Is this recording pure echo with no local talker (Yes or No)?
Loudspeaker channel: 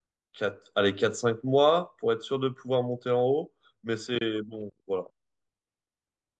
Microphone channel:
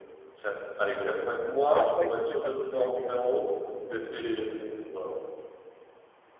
No